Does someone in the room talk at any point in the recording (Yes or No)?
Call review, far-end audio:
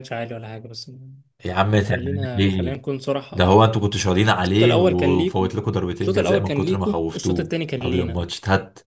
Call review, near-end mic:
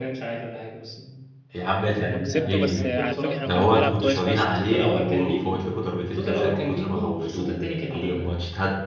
Yes